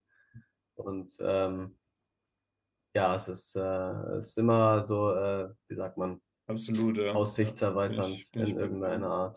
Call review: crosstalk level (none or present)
present